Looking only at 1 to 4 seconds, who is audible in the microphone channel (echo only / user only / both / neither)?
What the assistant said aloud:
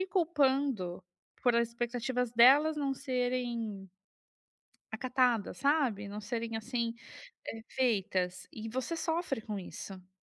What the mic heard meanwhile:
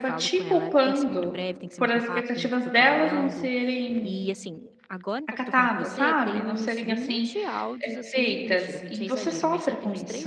both